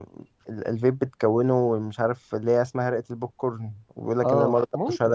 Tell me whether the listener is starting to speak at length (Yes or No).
Yes